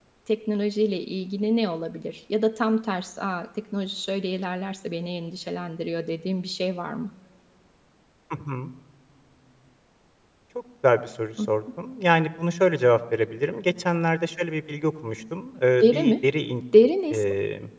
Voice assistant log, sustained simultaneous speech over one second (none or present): none